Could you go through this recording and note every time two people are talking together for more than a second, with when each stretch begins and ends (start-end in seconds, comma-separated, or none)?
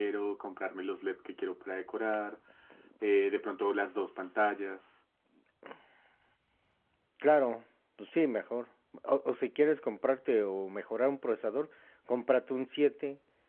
none